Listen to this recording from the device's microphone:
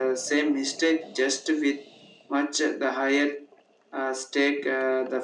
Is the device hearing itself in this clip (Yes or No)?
Yes